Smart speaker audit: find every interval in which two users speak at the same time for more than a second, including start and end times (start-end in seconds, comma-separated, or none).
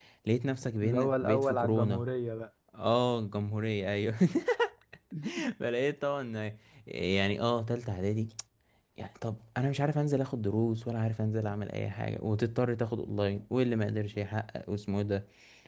0.8-2.0